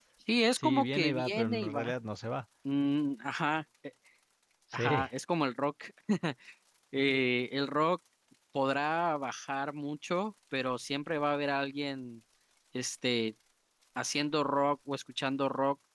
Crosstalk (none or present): present